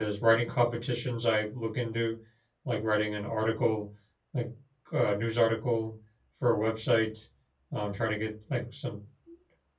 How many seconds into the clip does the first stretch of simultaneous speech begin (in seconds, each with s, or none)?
none